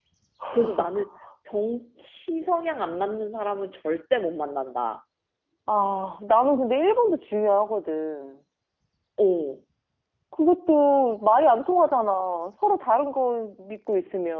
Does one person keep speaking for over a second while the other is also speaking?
No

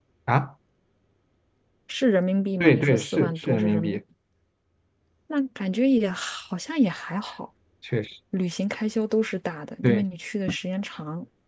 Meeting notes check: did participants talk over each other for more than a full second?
Yes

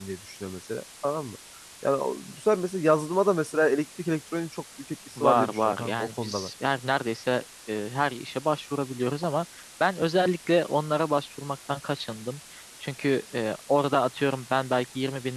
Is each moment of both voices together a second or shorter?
No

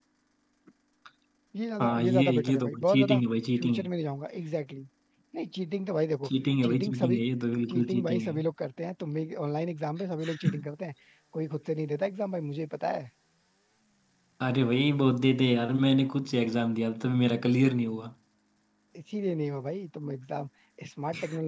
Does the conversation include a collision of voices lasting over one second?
Yes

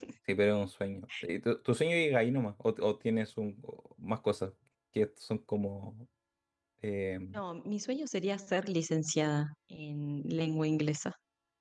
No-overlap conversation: Yes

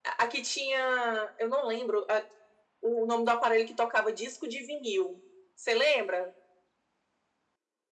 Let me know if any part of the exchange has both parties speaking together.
No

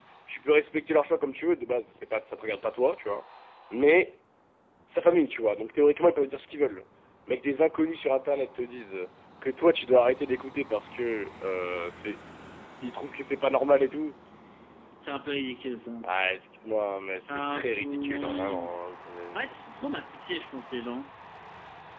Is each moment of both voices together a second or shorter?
No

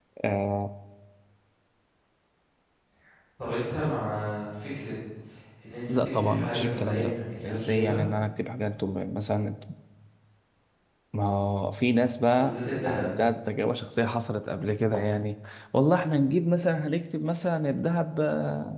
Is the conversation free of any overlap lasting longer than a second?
No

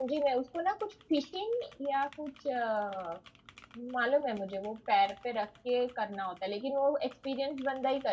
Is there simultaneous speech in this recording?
No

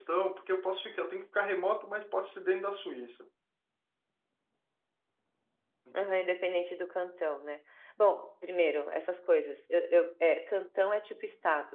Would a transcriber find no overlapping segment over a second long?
Yes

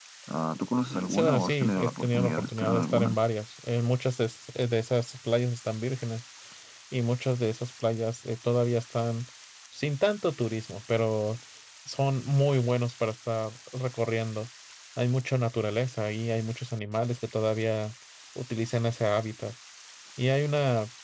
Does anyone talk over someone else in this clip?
Yes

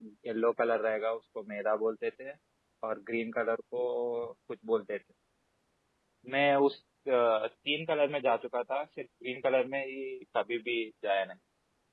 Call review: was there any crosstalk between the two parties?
No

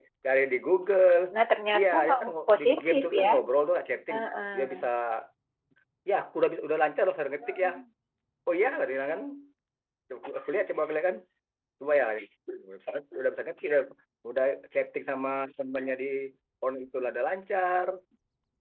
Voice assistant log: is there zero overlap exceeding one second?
No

